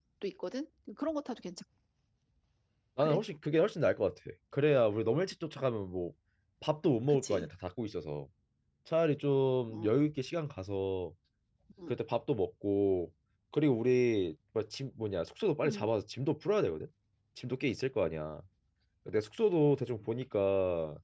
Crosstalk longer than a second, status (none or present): none